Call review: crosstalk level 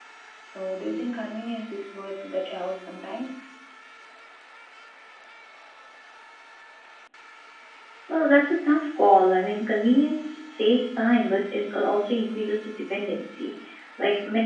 none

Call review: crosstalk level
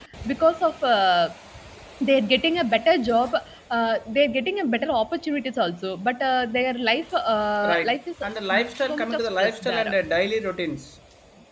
present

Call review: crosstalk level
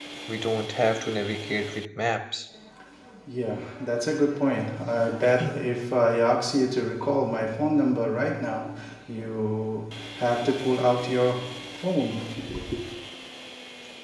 none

